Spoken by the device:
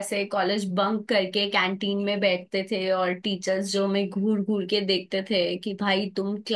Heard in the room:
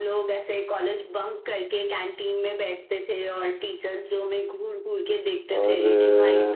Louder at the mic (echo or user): user